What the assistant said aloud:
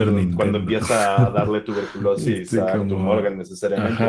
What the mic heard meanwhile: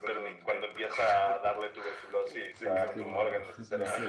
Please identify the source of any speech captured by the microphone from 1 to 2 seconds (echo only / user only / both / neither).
echo only